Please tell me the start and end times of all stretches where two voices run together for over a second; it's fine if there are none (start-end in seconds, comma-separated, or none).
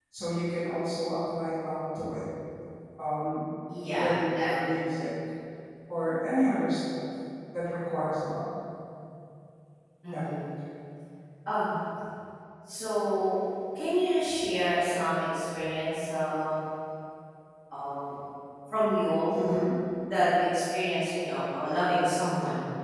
3.8-5.1